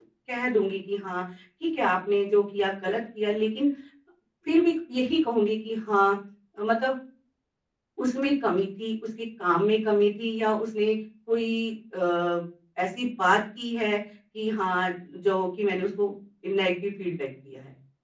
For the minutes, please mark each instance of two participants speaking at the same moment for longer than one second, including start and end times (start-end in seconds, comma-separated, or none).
none